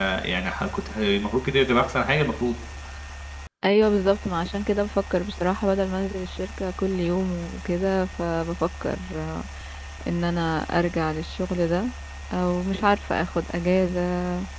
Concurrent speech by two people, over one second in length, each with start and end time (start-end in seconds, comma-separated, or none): none